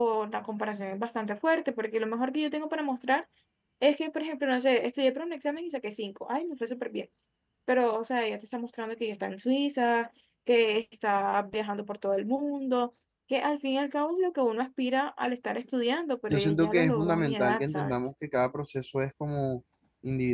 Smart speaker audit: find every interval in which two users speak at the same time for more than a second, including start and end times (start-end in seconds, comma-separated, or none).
16.3-17.9